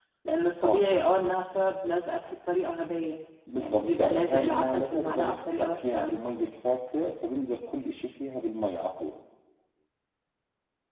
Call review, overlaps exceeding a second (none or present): present